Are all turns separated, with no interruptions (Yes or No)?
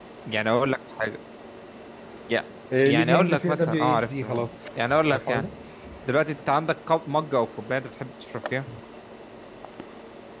No